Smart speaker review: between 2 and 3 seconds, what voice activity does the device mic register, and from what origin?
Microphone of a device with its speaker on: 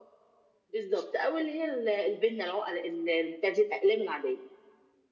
echo only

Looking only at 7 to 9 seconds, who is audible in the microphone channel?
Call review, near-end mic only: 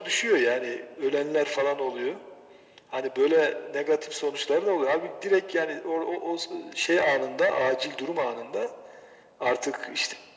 echo only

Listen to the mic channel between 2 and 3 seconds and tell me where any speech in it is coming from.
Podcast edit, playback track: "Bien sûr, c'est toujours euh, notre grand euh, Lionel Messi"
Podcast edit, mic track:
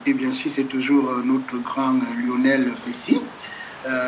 echo only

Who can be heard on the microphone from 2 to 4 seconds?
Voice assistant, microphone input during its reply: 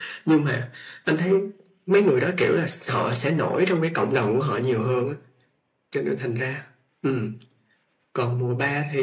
echo only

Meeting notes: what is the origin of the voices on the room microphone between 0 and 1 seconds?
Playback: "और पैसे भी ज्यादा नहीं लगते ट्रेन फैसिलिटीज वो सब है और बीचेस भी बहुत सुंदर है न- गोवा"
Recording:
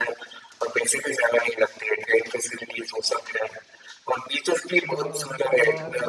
echo only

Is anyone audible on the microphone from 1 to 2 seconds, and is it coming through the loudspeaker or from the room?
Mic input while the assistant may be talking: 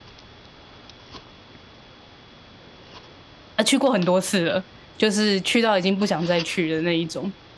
neither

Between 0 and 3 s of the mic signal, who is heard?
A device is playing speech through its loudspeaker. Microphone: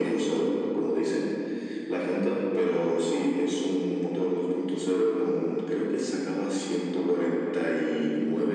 echo only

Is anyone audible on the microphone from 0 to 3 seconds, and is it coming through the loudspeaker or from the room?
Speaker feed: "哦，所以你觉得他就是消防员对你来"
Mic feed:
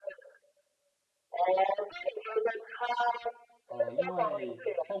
echo only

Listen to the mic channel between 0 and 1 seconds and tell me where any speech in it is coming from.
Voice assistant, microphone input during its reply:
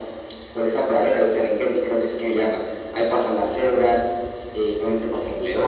echo only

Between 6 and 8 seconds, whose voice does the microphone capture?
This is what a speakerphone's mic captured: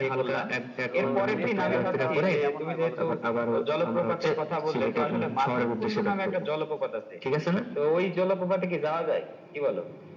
echo only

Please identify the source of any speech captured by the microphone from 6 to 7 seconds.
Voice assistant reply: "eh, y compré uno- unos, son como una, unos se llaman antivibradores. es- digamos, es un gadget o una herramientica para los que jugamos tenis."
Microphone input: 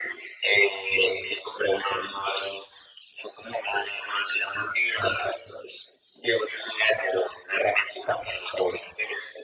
echo only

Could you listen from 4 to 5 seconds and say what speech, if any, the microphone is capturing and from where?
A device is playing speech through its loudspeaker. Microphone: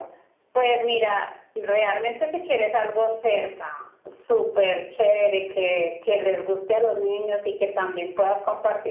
echo only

